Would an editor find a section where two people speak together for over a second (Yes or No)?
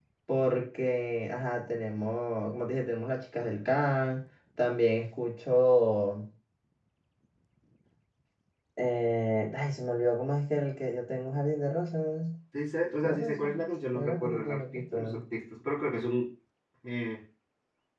Yes